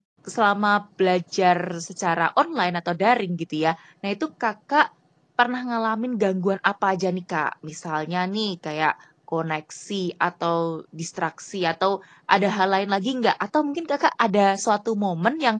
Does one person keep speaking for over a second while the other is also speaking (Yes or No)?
No